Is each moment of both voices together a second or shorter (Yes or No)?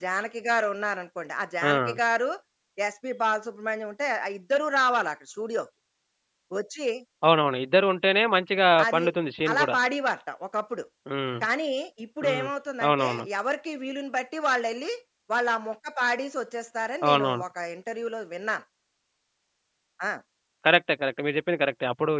Yes